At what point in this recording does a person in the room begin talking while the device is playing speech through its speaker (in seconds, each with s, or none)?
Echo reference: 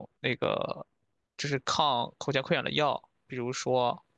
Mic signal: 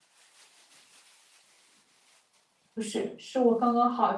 2.7 s